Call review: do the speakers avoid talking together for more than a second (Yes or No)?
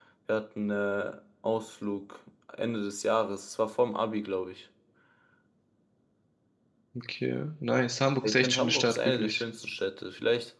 No